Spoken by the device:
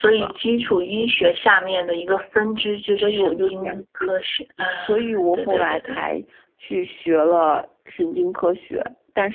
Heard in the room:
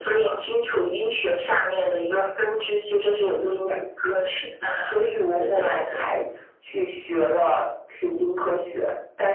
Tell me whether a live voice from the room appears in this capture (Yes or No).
No